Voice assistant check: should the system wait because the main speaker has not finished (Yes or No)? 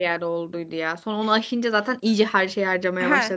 No